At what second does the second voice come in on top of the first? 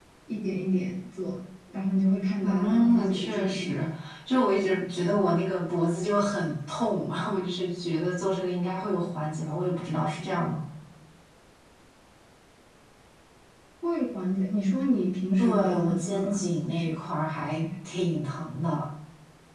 2.4 s

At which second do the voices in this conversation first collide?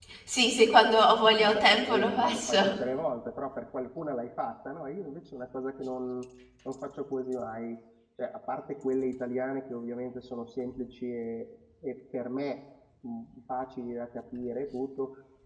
1.4 s

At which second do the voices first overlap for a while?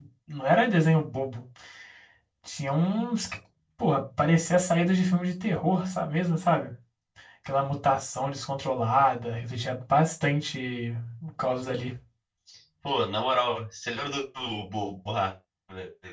none

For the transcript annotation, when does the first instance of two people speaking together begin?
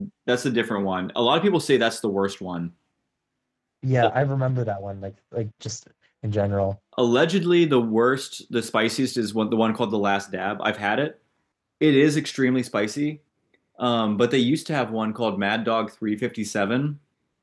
none

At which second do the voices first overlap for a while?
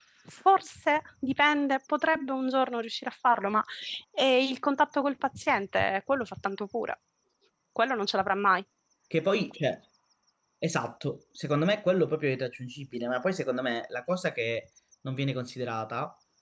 none

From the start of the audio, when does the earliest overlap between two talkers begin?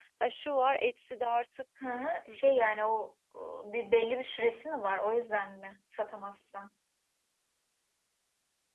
none

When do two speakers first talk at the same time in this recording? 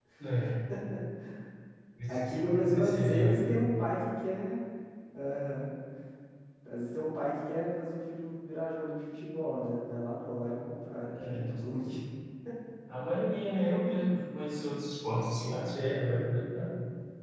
2.1 s

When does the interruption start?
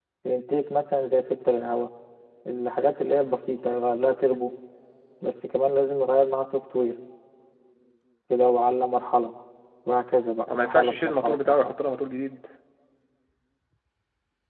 10.5 s

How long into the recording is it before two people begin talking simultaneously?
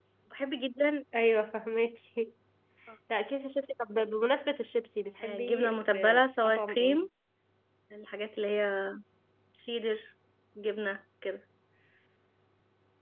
5.2 s

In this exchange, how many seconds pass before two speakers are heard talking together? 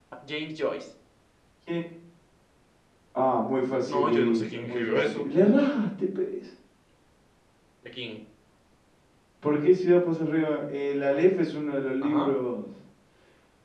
3.8 s

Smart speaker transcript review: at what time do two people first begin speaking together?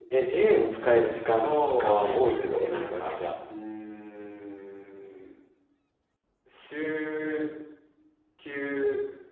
1.4 s

